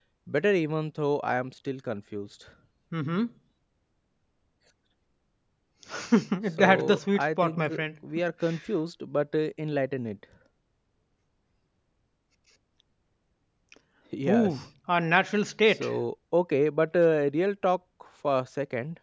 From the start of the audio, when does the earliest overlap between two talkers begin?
6.6 s

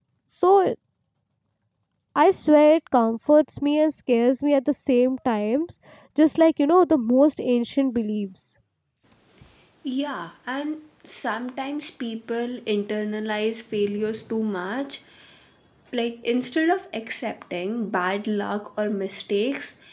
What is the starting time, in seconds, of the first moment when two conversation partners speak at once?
none

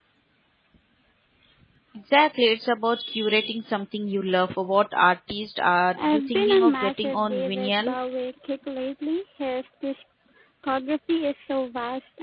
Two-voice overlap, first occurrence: 6.0 s

